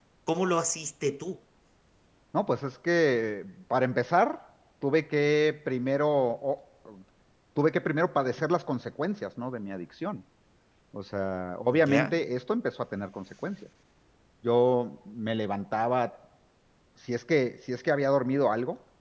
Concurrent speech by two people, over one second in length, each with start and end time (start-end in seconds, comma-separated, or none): none